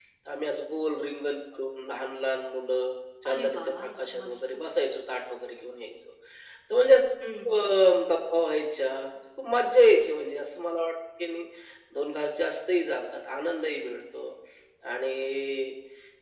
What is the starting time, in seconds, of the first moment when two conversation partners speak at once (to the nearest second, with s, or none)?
3 s